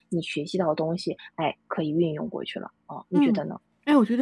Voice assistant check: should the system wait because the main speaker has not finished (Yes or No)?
No